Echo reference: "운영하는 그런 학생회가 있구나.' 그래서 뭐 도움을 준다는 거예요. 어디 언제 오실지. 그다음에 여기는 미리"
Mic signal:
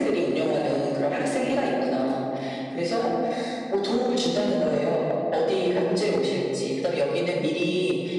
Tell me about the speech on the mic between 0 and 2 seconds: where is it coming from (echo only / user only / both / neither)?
echo only